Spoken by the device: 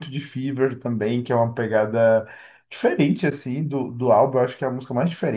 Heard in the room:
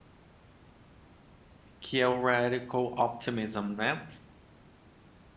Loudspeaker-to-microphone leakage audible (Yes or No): No